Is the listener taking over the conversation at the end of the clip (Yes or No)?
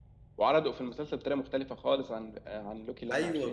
Yes